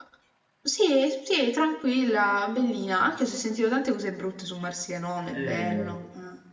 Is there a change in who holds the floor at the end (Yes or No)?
Yes